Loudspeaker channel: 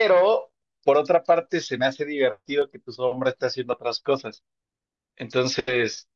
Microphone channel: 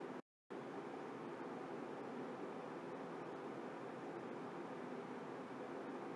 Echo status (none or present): none